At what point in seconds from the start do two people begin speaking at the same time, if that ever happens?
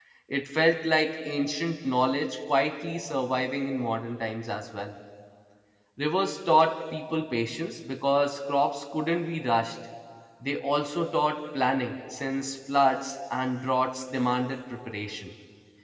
none

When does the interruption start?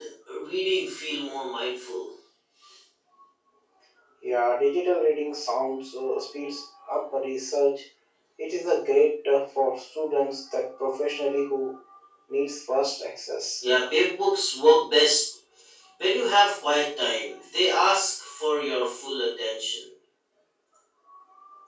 none

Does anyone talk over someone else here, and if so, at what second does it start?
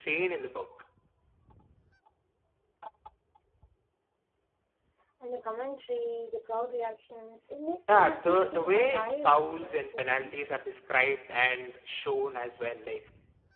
7.9 s

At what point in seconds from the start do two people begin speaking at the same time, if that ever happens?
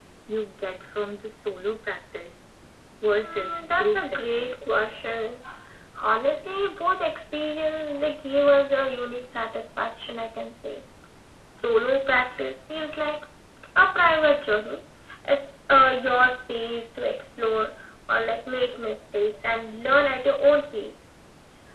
3.2 s

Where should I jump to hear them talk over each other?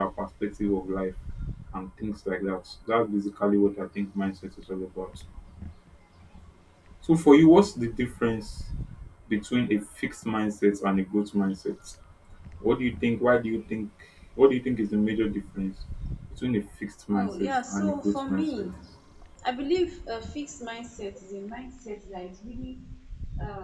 17.1 s

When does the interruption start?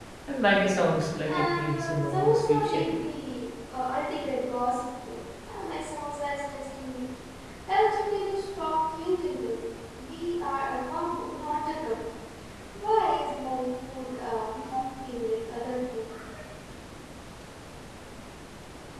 1.3 s

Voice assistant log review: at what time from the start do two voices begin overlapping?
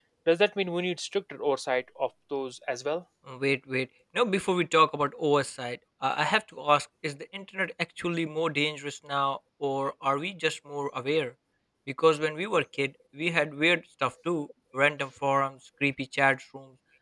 none

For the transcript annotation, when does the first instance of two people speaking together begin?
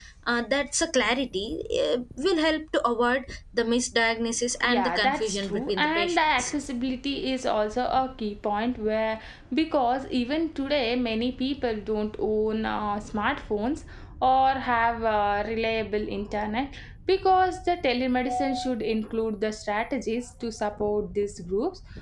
4.6 s

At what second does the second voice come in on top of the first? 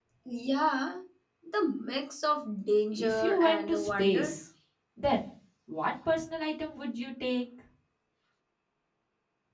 2.9 s

